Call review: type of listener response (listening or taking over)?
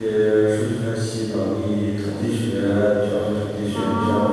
listening